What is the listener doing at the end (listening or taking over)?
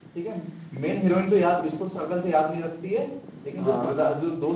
listening